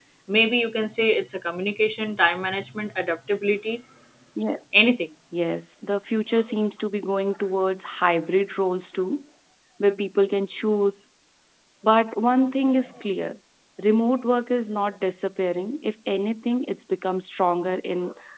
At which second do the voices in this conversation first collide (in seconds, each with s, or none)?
none